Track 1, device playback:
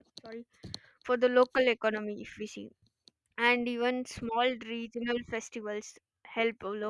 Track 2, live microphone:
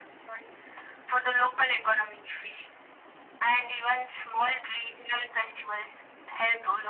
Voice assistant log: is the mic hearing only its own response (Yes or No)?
Yes